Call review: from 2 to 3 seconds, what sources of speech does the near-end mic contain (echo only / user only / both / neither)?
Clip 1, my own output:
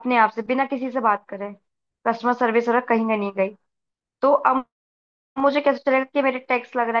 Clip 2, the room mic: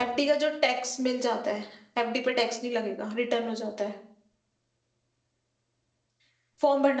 user only